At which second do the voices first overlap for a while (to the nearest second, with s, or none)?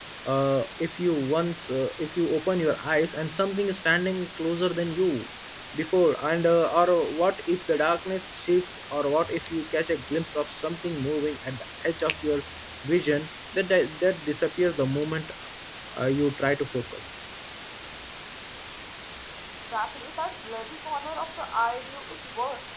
none